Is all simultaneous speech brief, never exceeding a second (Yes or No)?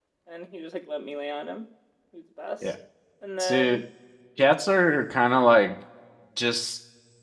Yes